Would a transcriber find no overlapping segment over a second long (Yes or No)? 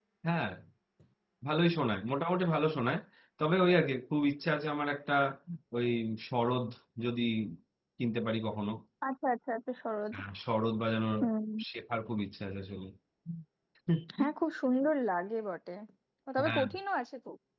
Yes